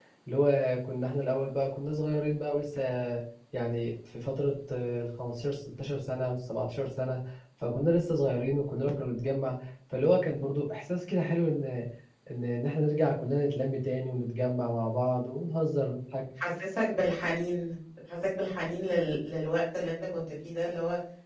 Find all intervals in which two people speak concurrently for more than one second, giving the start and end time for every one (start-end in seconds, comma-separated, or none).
none